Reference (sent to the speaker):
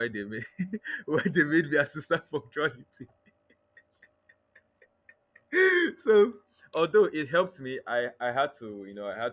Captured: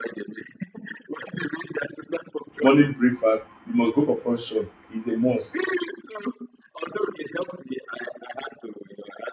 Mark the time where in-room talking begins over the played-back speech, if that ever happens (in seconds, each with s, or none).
2.6 s